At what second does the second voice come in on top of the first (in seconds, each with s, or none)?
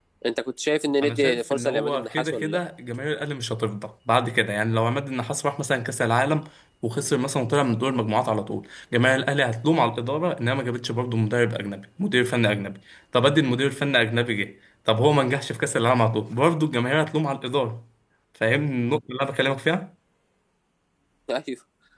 1.0 s